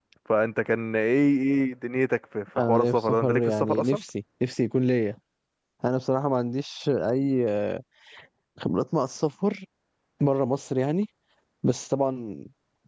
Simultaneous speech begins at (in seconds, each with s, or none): 2.6 s